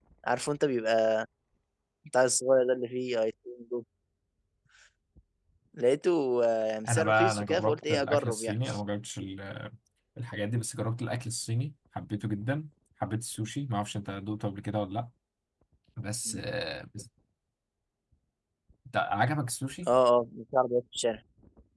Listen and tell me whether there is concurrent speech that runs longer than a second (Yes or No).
Yes